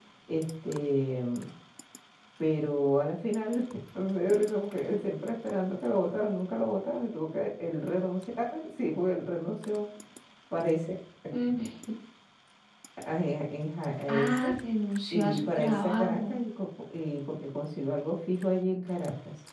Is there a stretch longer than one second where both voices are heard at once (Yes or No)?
Yes